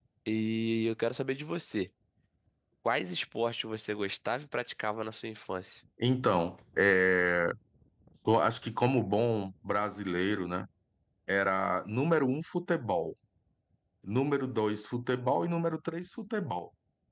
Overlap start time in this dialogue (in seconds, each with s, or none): none